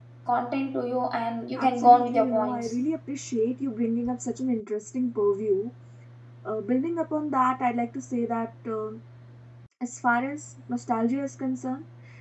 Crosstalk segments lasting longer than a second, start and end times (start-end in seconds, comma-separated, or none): 1.6-2.8